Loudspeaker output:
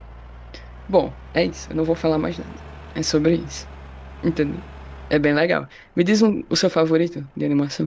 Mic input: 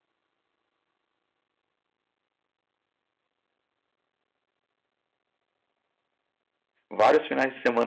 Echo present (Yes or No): No